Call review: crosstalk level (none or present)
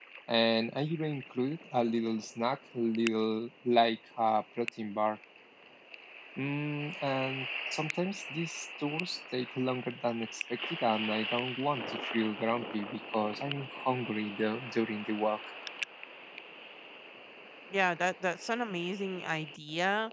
none